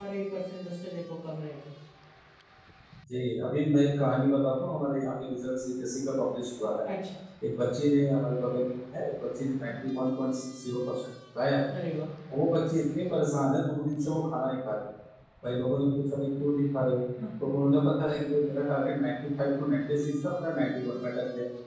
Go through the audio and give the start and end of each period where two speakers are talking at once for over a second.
none

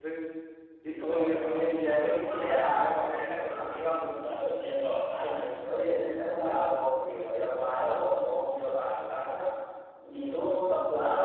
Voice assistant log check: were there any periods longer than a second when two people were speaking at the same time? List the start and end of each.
1.0-3.1

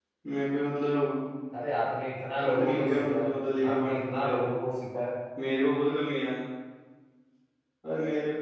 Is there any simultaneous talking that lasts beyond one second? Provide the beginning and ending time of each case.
2.4-4.3

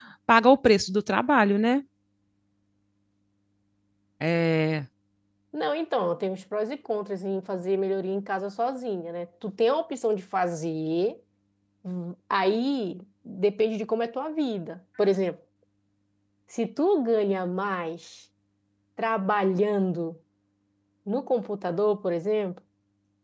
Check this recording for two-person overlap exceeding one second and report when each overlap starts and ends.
none

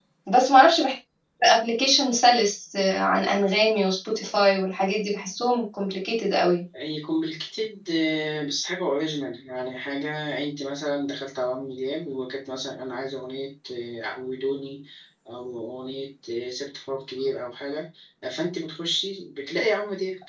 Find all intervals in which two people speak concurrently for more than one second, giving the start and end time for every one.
none

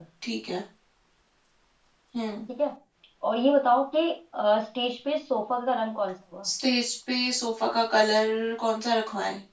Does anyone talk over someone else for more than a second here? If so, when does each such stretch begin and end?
none

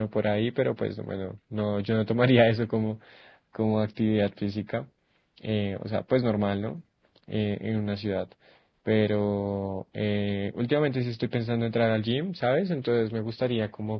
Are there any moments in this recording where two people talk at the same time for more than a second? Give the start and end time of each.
none

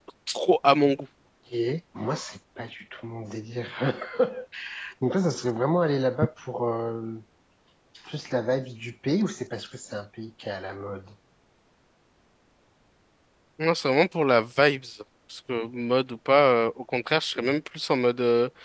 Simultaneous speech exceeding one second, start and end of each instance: none

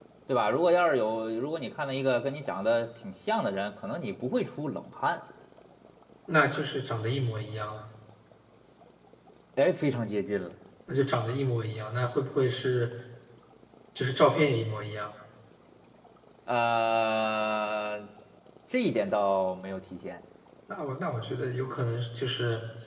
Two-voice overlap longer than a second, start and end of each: none

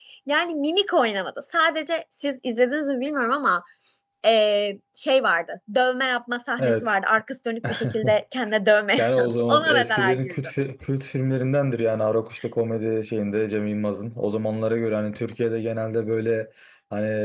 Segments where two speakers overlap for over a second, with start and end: 9.0-10.3

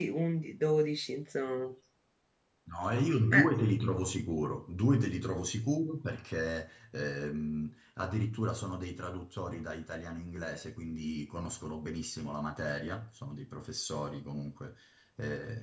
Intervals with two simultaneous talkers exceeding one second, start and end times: none

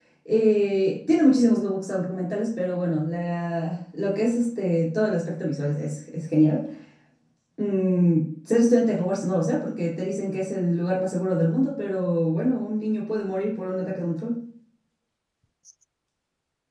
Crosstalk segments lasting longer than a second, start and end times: none

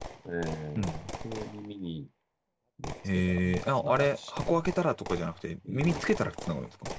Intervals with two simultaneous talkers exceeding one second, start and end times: 3.1-4.6

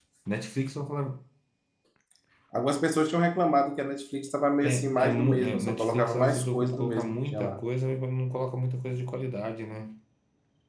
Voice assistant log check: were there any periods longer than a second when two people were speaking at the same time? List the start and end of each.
4.6-7.6

